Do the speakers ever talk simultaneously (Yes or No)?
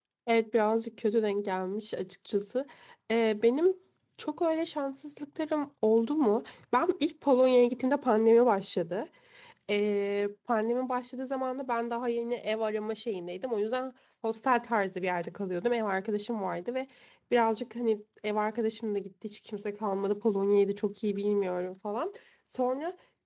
No